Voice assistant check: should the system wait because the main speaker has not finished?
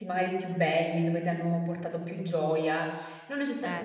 Yes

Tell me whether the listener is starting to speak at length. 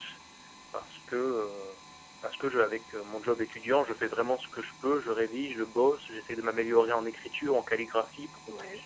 No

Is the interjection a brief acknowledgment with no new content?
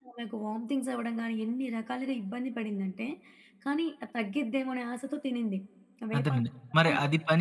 No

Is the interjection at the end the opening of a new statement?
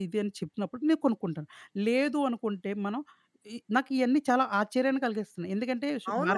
Yes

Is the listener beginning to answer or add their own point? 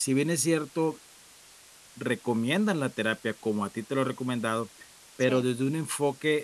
No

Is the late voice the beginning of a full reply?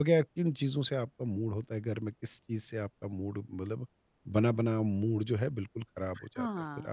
Yes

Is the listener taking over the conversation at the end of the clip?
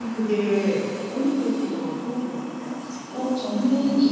Yes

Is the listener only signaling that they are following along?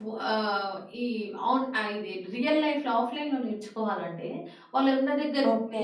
Yes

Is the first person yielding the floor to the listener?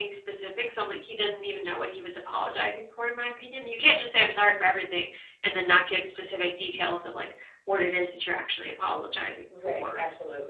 Yes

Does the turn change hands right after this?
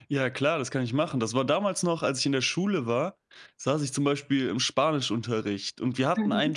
No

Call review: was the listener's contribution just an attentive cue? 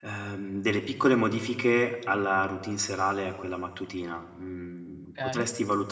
Yes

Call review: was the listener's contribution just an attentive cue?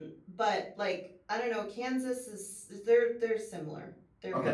No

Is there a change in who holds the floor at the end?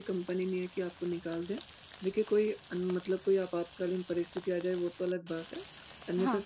No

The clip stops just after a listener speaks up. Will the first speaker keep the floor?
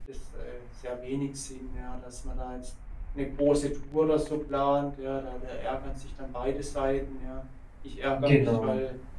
Yes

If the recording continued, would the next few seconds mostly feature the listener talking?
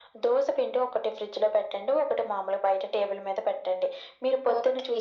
No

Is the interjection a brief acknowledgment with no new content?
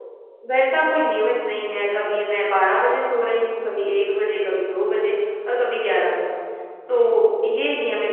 Yes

